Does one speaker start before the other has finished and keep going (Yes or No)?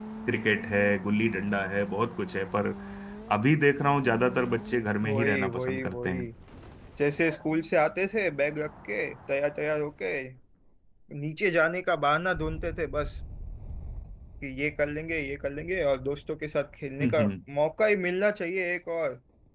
Yes